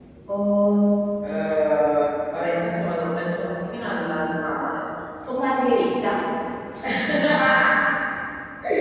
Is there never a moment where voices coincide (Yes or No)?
Yes